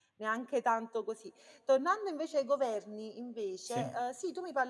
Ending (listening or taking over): listening